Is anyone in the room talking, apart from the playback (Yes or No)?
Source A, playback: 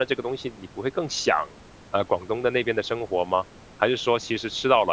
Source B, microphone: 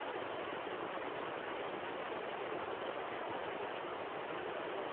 No